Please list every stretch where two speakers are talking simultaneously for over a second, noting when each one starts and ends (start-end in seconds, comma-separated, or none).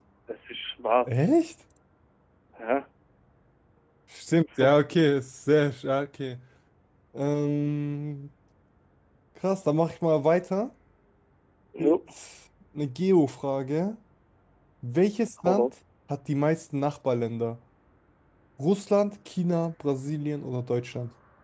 none